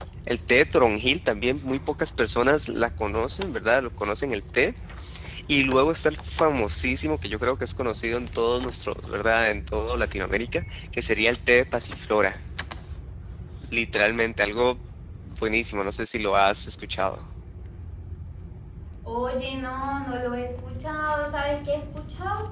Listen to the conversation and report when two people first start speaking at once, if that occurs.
none

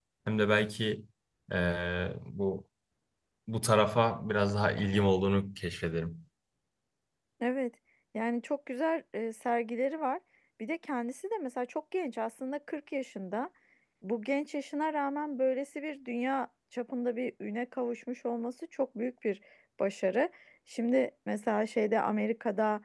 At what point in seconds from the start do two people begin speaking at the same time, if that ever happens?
none

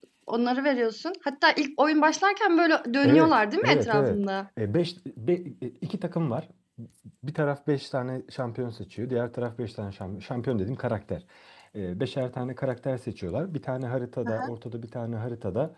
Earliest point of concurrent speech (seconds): 3.0 s

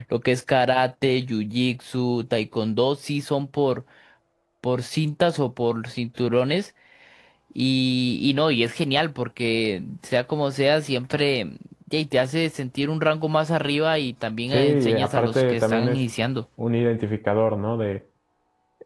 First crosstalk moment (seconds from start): 14.5 s

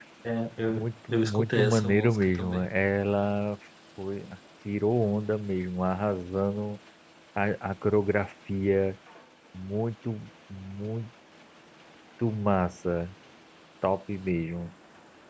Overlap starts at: 0.7 s

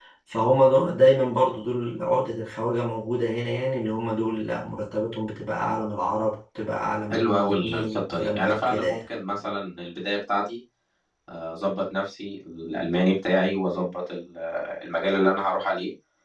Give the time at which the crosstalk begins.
7.1 s

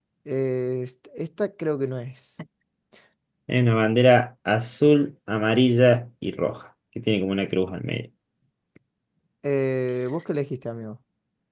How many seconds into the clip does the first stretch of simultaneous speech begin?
none

